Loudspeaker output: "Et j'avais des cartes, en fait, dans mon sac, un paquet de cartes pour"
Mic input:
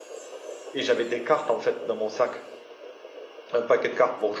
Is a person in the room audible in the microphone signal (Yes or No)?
No